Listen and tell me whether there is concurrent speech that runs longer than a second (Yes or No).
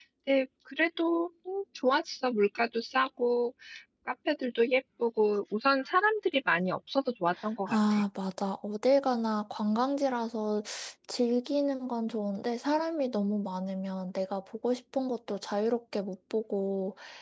No